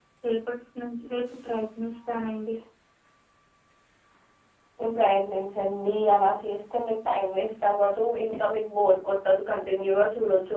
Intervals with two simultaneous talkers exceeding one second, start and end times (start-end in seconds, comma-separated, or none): none